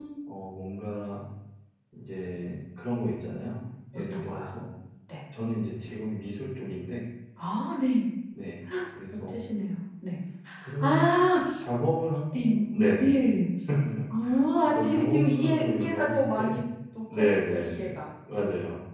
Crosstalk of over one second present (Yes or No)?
Yes